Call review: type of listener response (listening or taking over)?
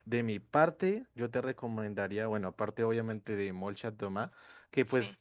listening